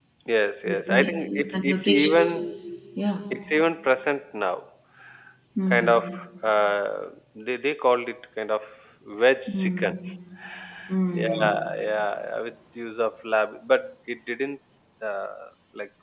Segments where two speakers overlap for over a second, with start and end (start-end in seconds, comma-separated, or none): 0.7-2.4